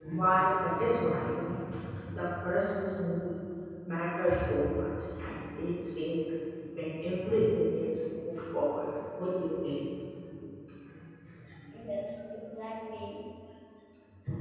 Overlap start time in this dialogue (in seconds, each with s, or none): none